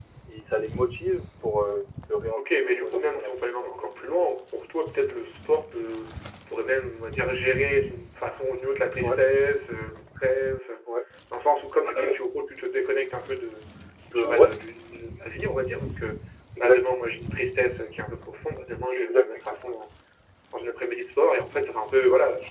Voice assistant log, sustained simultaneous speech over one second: present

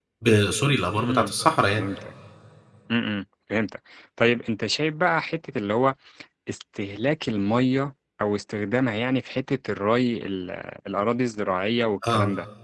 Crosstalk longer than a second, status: none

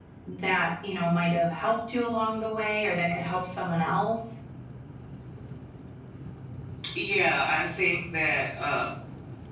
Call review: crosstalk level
none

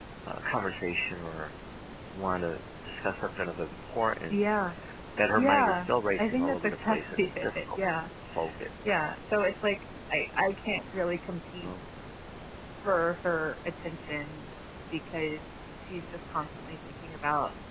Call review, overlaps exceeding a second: present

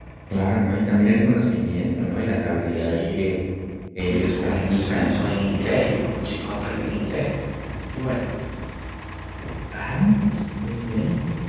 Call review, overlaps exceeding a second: present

